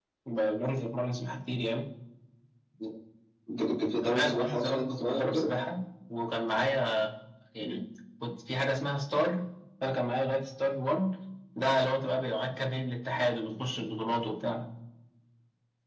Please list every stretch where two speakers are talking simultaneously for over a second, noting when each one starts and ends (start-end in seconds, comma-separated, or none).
4.0-5.5